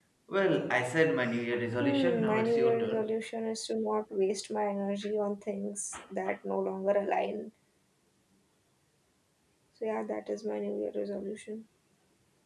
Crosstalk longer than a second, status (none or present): present